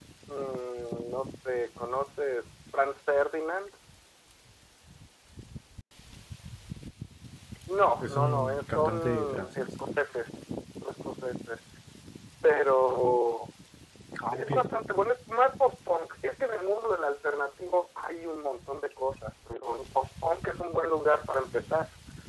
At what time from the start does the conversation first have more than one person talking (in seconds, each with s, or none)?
8.0 s